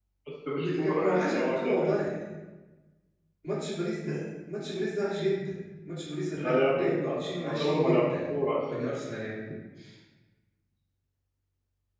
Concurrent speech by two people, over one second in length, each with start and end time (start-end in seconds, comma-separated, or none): 0.6-1.9, 6.4-8.1